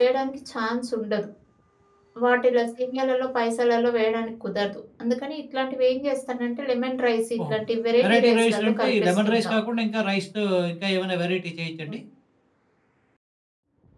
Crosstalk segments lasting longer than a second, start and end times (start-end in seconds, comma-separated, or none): 8.0-9.5